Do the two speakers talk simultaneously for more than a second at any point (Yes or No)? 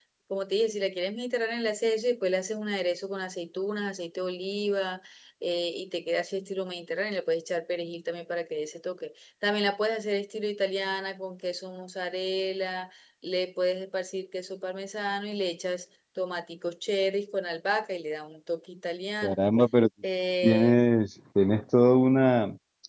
No